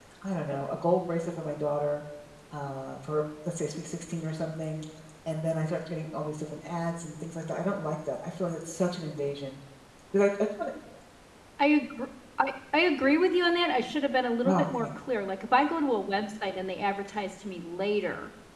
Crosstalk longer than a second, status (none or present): none